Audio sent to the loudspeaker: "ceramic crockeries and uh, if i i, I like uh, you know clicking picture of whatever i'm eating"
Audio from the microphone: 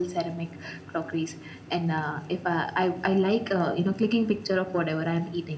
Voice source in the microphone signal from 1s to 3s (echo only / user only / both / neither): echo only